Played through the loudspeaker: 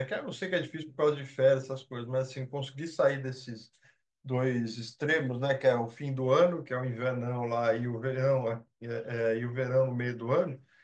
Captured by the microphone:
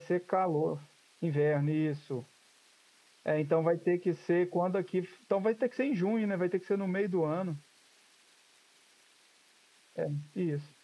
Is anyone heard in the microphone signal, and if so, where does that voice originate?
user only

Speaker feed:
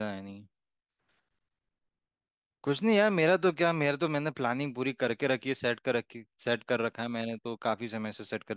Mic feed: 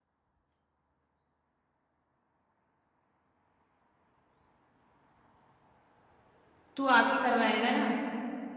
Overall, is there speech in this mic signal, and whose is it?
user only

